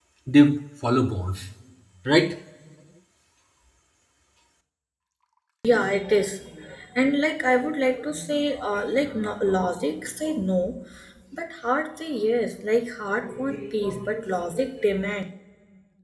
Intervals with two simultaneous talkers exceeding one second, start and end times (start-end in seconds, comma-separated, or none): none